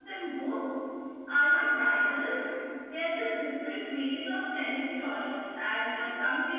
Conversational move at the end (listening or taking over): listening